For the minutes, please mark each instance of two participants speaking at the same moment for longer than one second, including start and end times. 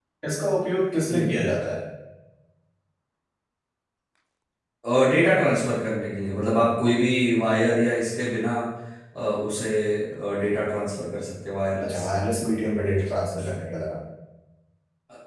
none

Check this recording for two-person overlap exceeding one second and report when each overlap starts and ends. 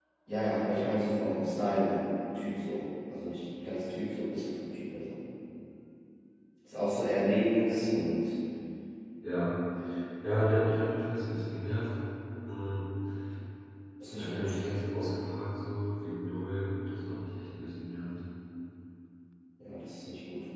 none

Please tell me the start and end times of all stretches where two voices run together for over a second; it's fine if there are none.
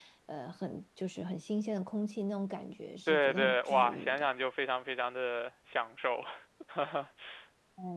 3.1-4.3

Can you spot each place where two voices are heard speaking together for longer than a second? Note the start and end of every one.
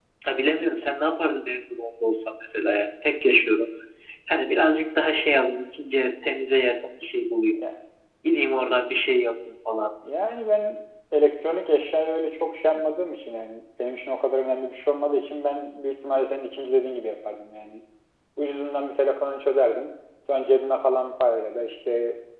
none

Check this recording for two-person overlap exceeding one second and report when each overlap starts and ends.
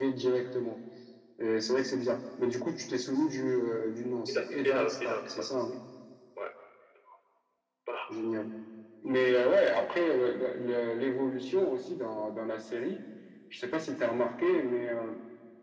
4.3-5.7

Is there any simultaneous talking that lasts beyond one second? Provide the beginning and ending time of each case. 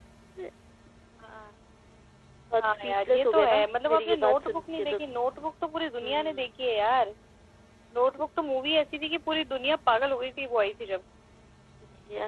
2.6-5.0

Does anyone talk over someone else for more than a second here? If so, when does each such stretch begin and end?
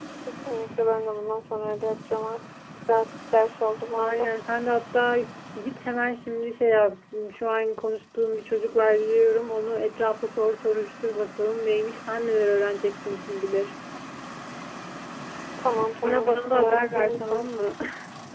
16.0-17.4

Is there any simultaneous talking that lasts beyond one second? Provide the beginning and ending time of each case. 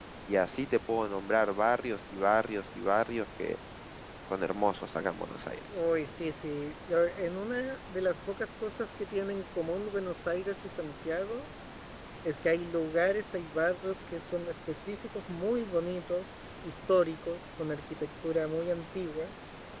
none

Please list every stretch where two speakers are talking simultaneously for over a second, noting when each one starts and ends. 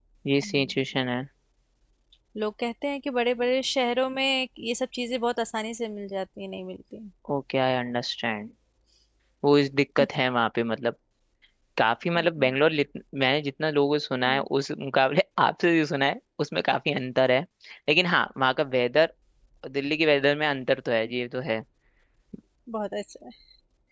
none

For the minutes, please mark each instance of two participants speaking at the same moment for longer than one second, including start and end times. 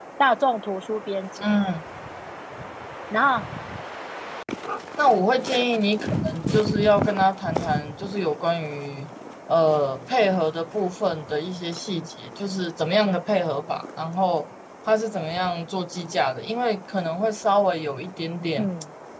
none

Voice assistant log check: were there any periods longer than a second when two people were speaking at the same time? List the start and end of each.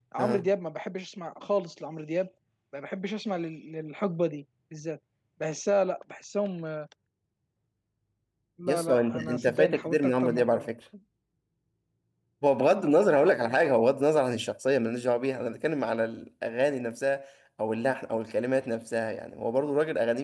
8.7-10.7

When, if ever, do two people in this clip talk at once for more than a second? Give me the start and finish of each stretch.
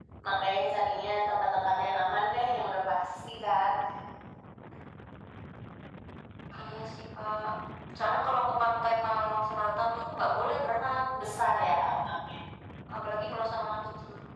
none

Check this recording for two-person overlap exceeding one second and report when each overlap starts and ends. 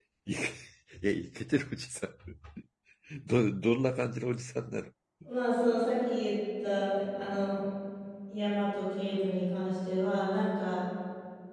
none

